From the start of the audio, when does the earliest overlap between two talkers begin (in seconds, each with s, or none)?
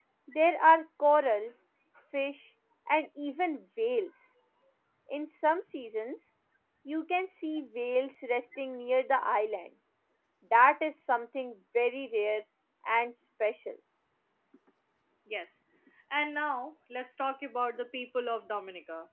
none